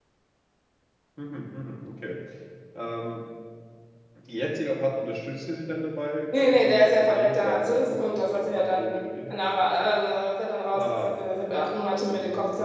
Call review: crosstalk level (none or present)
present